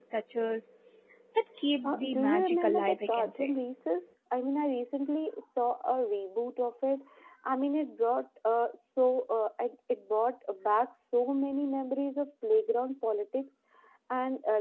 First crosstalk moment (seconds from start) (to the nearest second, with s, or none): 2 s